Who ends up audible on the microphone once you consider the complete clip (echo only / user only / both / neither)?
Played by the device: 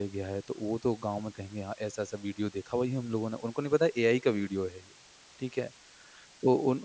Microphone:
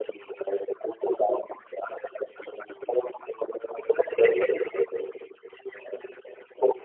echo only